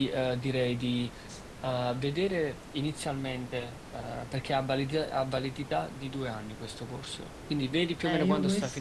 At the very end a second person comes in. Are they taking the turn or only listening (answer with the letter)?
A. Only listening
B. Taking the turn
B